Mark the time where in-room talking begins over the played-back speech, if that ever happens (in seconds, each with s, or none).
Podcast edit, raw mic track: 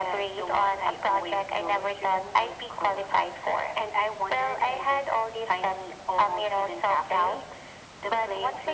none